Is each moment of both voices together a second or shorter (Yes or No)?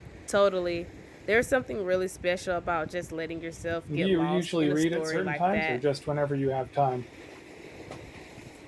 No